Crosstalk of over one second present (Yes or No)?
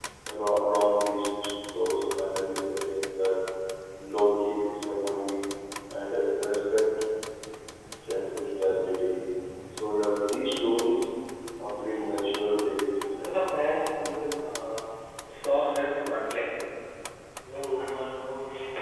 No